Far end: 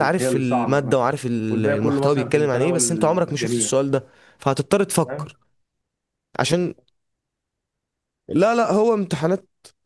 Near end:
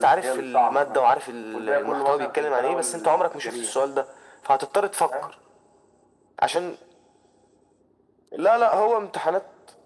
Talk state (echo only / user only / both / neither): echo only